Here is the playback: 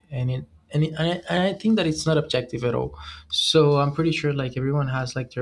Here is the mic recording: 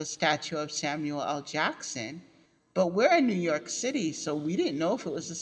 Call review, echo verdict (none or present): none